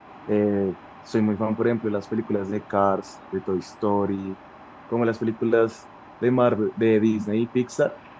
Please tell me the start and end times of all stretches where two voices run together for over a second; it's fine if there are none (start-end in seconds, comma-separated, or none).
none